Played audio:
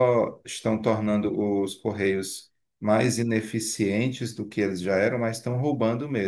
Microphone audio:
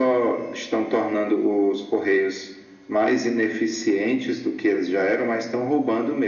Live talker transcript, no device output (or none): none